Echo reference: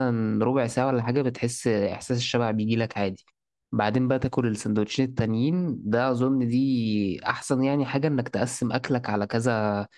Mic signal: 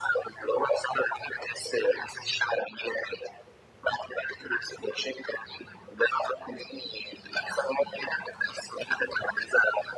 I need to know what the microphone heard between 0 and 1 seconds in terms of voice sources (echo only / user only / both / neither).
echo only